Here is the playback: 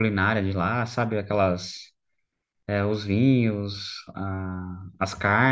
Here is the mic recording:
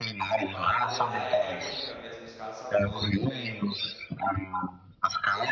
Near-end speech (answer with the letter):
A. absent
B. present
B